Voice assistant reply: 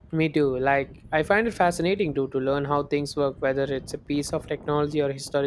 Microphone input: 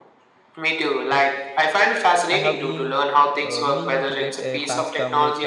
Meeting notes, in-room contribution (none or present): present